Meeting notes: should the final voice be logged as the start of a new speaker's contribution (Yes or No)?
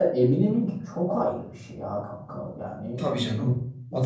Yes